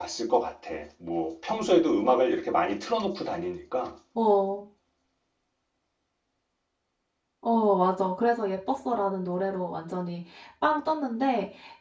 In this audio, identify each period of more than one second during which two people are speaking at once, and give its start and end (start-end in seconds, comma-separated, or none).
none